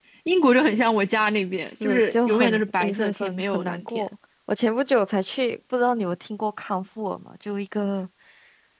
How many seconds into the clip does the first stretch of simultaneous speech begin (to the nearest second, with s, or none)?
2 s